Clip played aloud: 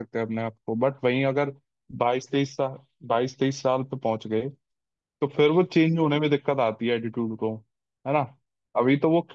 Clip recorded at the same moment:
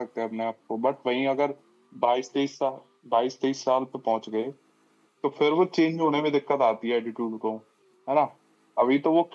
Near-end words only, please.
none

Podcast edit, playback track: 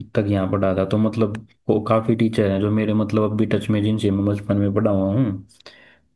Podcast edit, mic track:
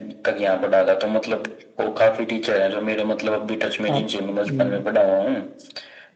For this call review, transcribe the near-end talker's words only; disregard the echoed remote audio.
आप हम्म,

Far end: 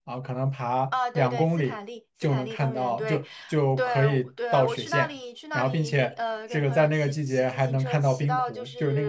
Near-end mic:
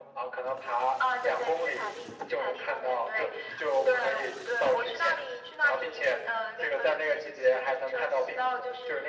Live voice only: none

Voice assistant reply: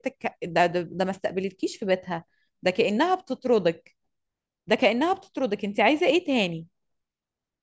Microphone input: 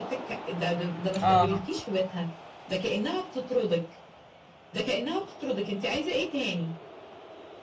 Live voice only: اه

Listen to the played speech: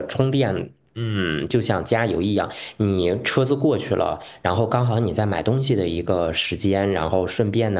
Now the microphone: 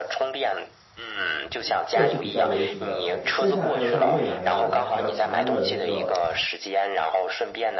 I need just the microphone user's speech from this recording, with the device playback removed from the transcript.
这三个是比较流行的牌子，剩下的还有像蔚来呀、然后还有长安的那个

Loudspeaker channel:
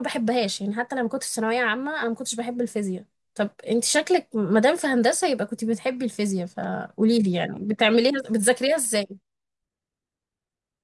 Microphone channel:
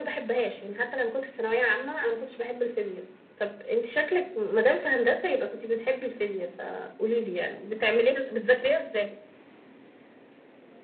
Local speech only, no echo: none

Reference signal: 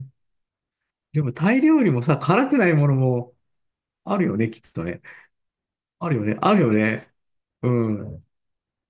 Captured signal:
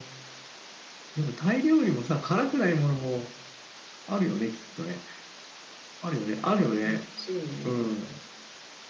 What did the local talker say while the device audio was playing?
欲しいね。

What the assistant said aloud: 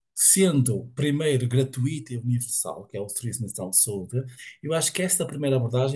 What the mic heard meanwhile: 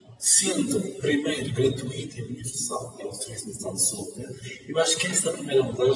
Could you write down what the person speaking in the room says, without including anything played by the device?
none

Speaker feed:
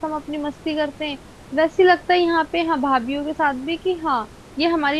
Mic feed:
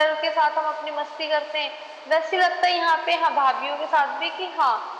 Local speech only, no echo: none

